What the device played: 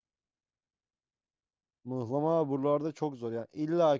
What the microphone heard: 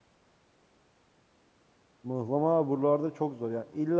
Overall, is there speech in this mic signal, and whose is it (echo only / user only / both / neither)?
echo only